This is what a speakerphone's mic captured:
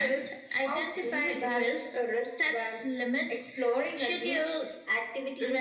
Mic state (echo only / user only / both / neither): echo only